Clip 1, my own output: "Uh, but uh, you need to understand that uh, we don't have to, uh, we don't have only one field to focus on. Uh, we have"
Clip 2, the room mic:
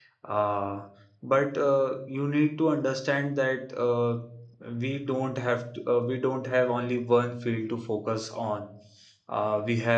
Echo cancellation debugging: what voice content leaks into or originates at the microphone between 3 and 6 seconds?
echo only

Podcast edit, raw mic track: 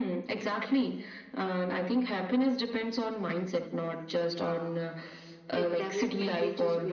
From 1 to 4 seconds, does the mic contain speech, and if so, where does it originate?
echo only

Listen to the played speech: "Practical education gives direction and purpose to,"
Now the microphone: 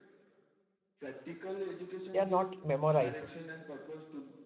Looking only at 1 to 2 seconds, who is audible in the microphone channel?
echo only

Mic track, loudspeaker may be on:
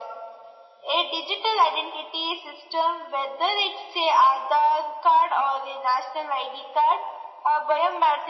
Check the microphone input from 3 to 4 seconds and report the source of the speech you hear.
echo only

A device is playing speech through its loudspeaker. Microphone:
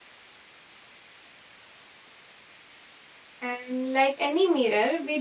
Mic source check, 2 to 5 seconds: user only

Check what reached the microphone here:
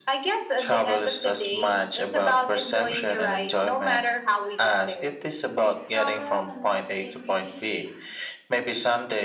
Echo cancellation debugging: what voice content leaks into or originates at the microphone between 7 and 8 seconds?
both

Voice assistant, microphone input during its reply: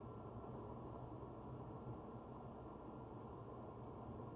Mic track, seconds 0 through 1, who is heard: neither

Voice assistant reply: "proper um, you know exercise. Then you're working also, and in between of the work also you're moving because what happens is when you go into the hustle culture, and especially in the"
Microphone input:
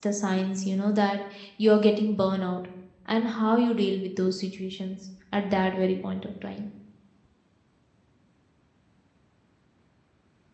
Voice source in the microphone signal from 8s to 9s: neither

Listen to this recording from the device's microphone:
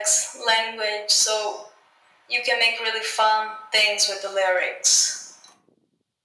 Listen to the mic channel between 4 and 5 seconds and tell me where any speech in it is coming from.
echo only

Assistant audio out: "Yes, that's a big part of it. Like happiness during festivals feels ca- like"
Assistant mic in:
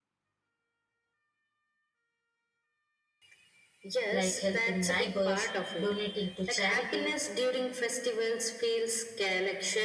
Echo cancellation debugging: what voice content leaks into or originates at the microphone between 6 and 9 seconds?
both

